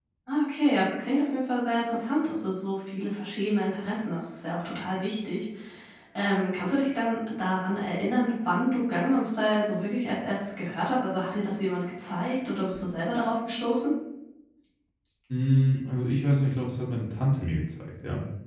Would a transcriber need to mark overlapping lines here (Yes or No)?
No